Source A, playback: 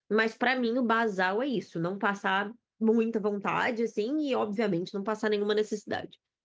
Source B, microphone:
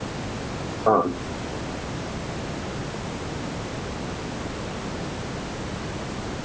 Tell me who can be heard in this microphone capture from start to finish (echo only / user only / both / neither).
user only